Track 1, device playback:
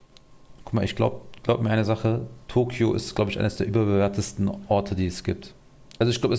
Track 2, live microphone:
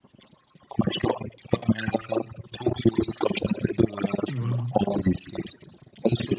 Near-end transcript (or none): War,